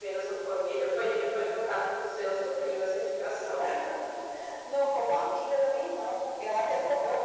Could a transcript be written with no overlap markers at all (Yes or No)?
Yes